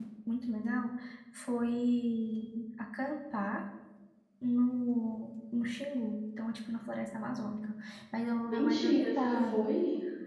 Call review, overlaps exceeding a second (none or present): present